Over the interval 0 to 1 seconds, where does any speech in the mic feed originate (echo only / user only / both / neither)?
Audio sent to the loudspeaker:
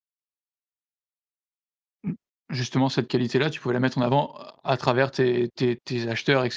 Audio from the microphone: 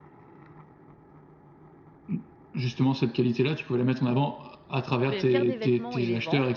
neither